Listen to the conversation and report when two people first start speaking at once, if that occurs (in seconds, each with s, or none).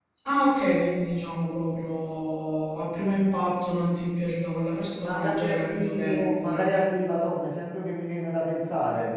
4.9 s